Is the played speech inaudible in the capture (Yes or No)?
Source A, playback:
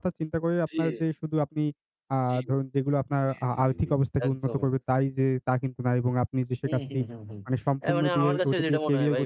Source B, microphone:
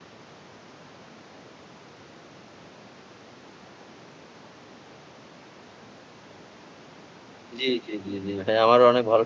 Yes